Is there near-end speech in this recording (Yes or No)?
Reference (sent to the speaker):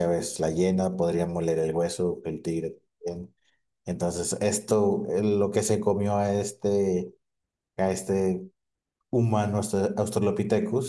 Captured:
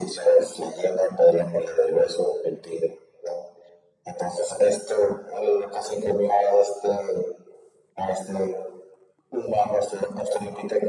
No